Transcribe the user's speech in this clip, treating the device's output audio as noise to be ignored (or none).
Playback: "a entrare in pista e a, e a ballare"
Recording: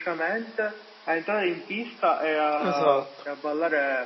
esatto,